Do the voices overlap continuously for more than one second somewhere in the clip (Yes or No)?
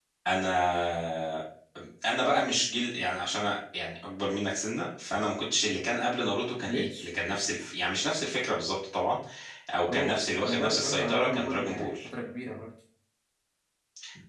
Yes